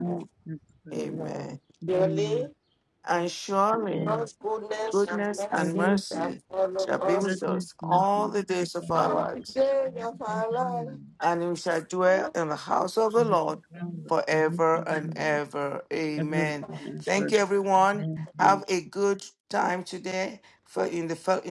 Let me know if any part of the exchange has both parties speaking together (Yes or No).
Yes